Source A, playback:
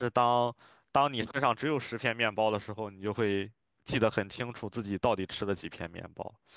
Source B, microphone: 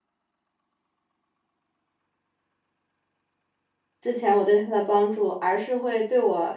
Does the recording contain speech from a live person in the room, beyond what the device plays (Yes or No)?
Yes